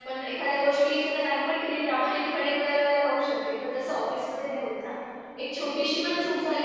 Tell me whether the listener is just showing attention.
Yes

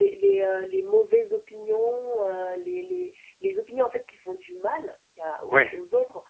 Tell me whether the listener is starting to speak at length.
No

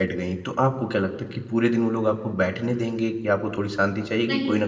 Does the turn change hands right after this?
No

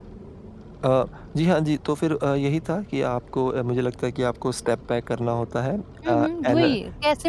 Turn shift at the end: Yes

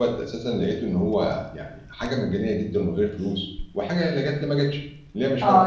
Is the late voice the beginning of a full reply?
Yes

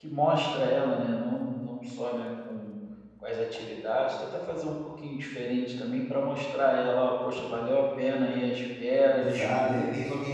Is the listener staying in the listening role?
No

